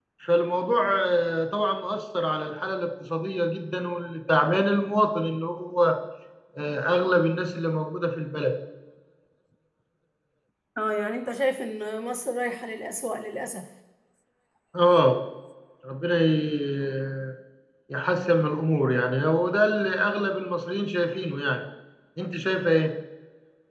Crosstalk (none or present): none